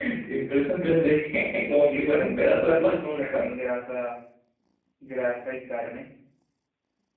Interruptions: present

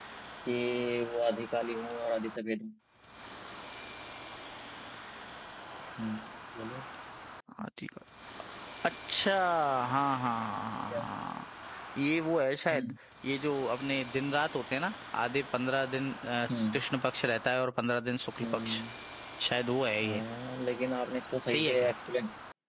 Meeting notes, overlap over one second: none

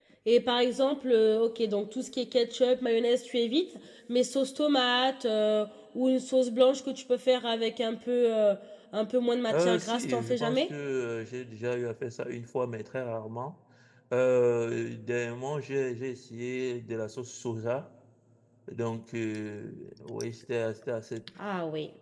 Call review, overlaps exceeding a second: present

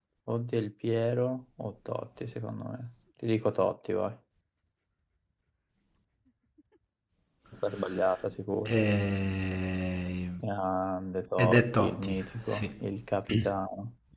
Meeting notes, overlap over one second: present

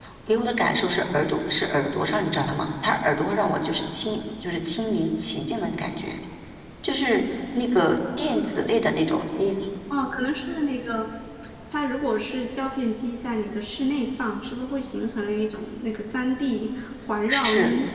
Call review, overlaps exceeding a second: none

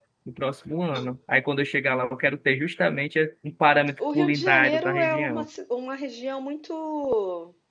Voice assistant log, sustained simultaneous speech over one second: present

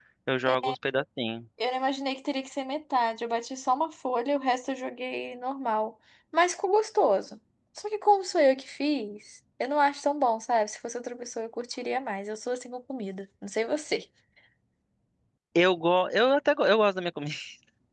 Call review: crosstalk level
none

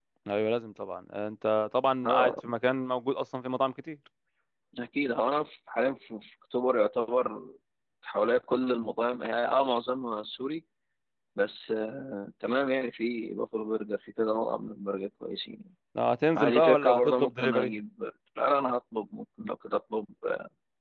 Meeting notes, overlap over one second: present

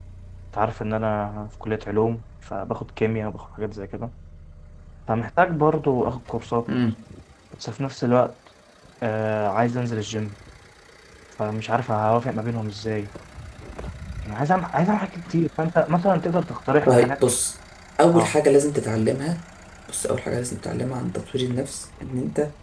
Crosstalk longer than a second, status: none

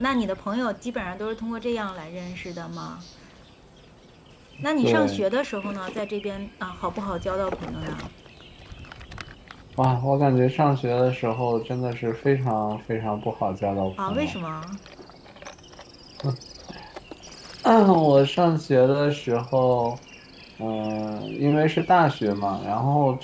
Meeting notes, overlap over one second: none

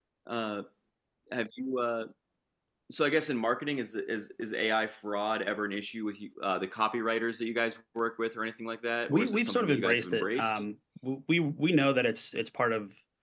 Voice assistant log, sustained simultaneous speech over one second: present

